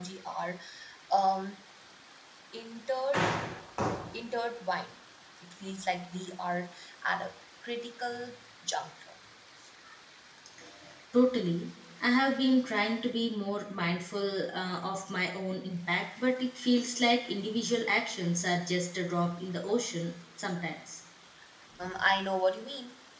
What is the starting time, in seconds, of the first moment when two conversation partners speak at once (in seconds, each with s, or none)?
none